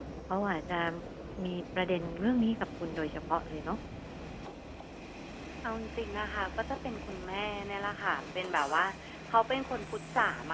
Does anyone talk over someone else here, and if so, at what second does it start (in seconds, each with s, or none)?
none